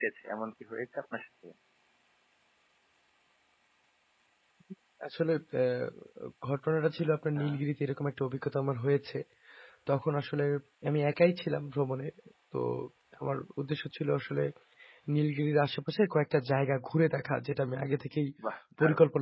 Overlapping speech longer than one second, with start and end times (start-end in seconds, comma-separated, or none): none